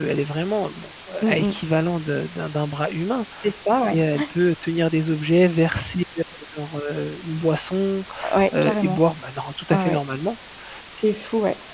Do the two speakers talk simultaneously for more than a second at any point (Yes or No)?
No